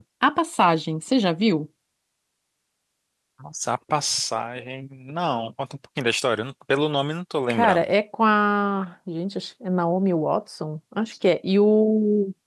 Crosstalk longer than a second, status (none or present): none